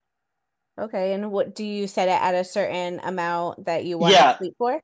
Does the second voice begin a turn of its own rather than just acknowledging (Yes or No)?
Yes